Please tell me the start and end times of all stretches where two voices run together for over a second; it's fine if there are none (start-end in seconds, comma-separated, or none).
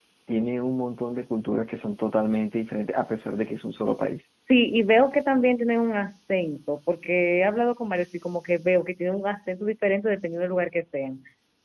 none